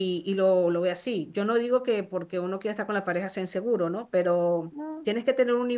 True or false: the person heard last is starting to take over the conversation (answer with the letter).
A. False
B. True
A